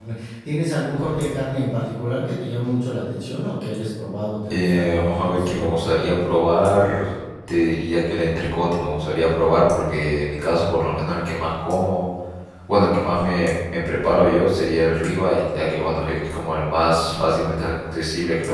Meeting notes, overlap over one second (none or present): present